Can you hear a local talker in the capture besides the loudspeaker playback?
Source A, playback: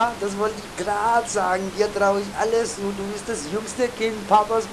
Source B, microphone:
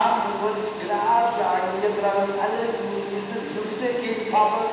No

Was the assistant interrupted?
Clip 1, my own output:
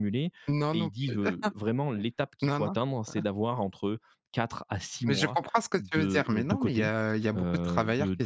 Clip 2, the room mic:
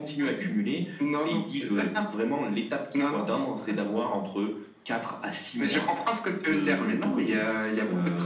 No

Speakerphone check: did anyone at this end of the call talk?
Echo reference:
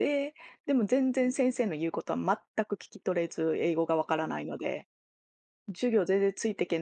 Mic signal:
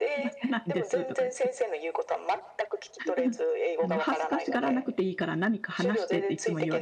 Yes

